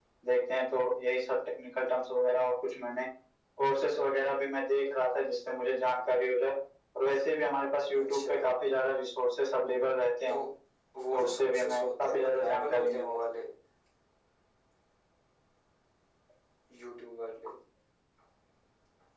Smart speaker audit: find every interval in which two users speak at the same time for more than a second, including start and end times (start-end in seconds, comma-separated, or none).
11.1-13.2